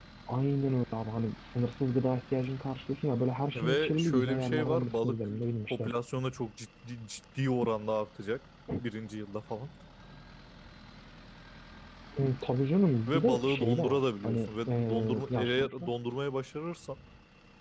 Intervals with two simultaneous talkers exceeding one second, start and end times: 3.5-5.3, 13.1-15.9

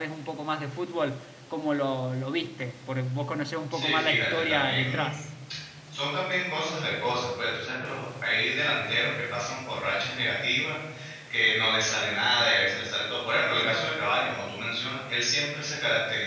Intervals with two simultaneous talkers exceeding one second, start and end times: 3.7-5.2

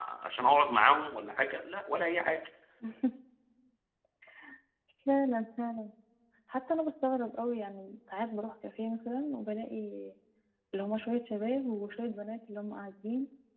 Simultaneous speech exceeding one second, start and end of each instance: none

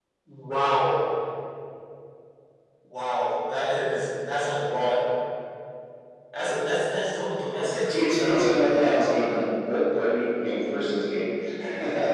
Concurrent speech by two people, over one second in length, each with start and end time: 7.9-9.4

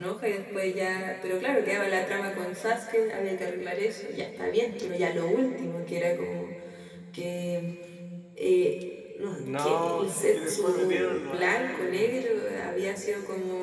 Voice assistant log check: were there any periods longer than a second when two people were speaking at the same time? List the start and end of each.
9.3-12.1

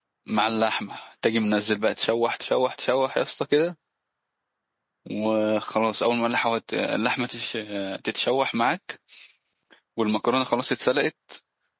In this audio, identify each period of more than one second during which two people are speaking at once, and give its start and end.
none

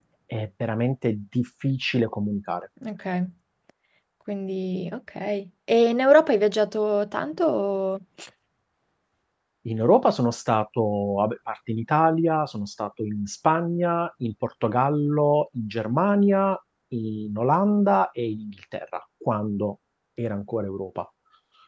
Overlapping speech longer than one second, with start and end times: none

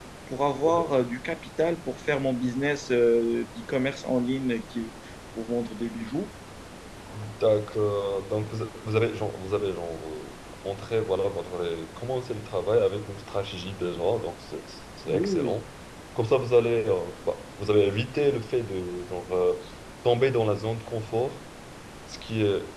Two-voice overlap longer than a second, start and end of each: none

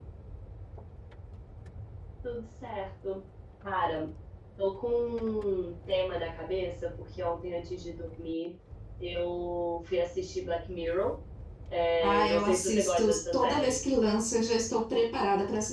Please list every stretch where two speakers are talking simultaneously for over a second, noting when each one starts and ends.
12.0-13.8

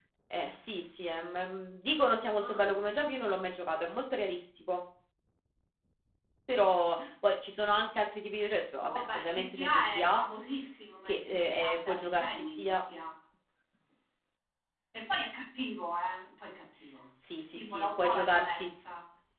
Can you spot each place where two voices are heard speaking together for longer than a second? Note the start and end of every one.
8.9-10.2, 11.1-12.7, 17.4-18.7

